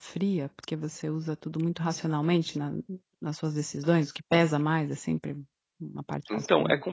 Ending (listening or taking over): taking over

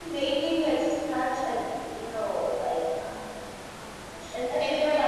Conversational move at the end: taking over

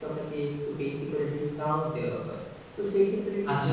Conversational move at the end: taking over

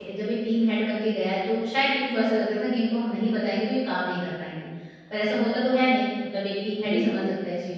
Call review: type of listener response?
listening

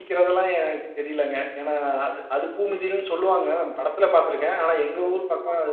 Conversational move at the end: listening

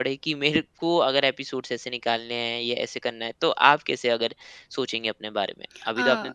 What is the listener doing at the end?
taking over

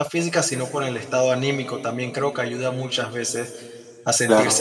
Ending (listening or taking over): listening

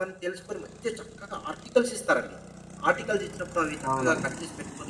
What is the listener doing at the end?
listening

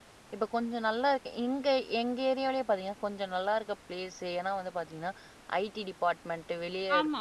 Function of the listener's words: listening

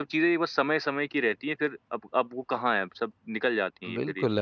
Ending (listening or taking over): taking over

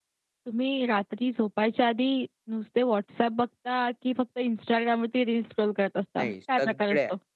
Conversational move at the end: taking over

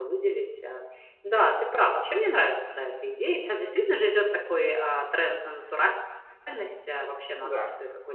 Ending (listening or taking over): listening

